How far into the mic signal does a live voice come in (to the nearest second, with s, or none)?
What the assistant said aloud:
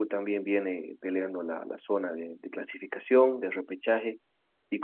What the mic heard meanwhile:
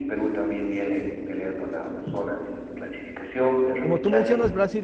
4 s